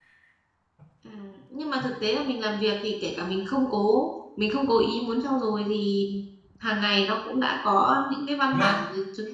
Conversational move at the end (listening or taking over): listening